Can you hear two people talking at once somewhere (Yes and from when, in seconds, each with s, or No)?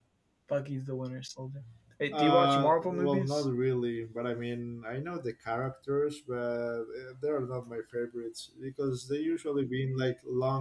Yes, from 2.1 s